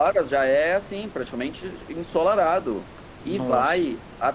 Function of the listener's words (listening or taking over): listening